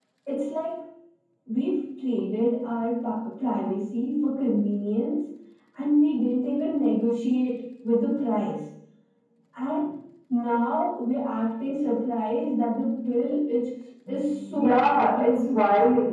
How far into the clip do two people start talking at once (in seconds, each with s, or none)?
14.5 s